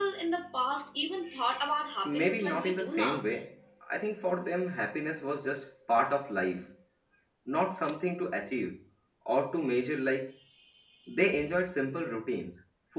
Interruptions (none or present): present